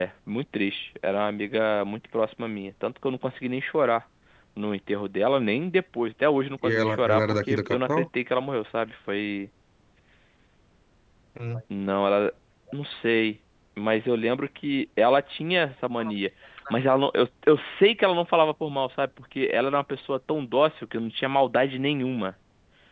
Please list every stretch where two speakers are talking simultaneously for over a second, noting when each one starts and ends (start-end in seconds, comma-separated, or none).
6.6-8.0